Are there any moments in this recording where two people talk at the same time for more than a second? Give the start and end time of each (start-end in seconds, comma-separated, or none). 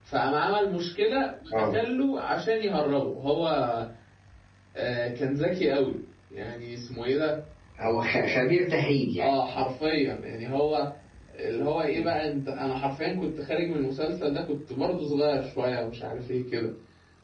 none